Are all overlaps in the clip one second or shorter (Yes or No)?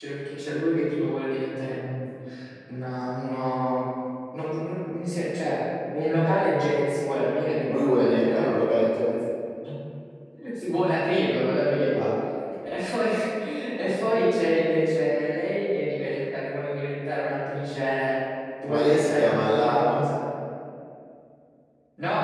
No